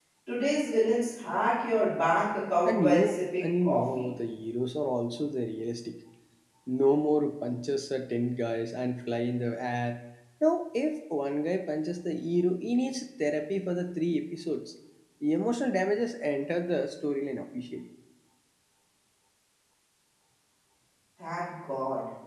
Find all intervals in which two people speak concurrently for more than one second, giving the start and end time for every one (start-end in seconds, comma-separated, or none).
2.6-4.0